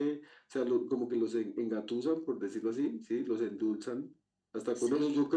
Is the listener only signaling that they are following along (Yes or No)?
Yes